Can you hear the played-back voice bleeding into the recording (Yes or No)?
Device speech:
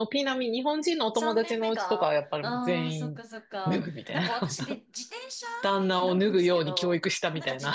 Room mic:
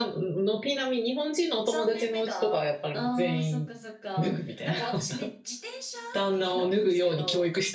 Yes